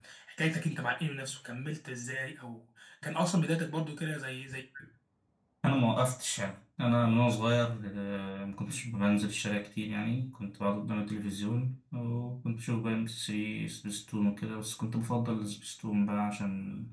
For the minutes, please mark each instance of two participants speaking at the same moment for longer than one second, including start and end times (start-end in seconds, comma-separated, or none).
none